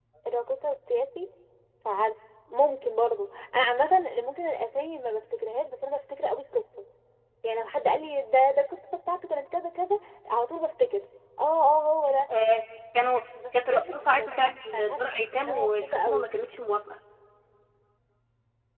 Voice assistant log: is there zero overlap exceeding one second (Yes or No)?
No